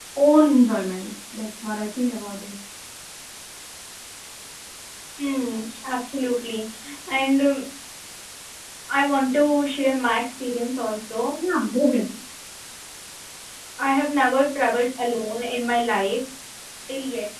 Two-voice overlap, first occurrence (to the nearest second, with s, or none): none